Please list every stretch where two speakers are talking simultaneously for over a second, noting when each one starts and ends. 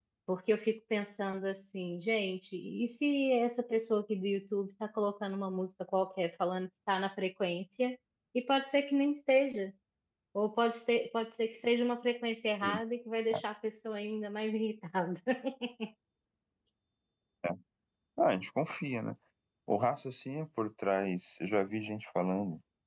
none

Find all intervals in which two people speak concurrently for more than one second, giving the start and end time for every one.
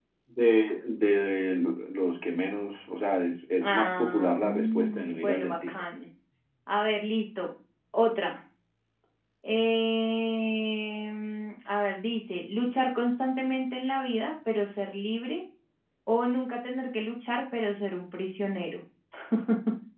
3.6-5.7

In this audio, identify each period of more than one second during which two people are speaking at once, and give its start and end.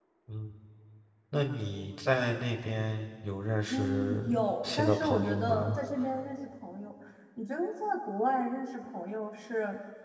3.7-5.8

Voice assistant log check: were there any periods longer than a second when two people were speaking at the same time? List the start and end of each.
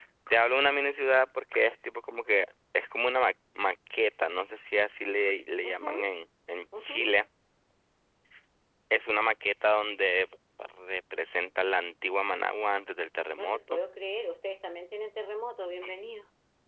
none

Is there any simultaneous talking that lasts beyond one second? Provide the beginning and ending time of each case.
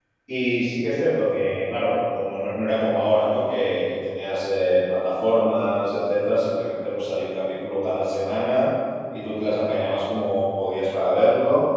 none

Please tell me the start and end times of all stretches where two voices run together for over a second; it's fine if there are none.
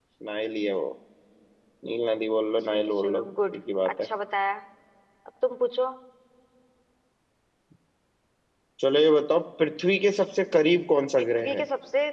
2.6-4.1

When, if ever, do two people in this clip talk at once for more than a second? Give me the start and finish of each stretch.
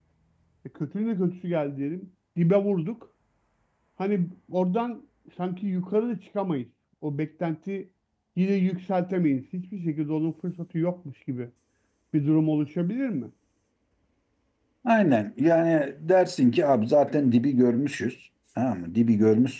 none

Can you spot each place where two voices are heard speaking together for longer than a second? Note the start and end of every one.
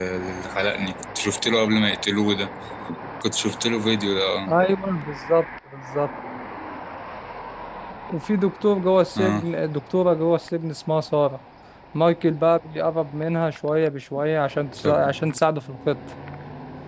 none

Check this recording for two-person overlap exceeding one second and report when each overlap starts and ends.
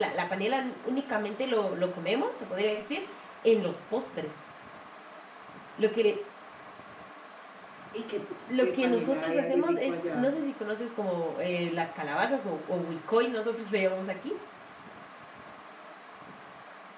8.6-10.3

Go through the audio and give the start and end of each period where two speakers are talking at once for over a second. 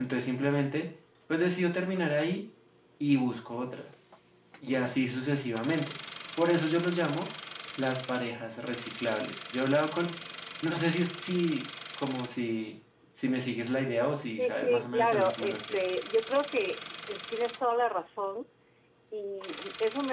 14.4-15.8

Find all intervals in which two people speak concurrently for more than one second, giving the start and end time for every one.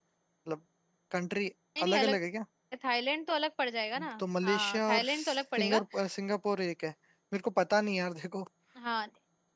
4.4-5.8

